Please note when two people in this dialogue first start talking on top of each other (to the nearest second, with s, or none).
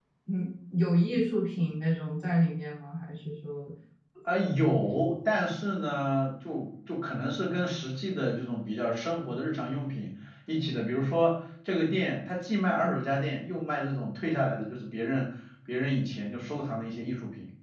none